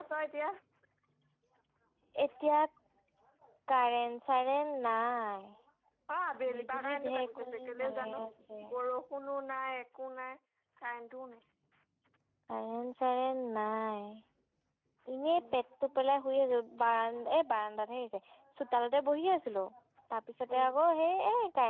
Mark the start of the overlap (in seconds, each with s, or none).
6.5 s